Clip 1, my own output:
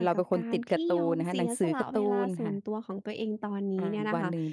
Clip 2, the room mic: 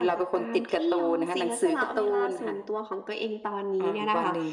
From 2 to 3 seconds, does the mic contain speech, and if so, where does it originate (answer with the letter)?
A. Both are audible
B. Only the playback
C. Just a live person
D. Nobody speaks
B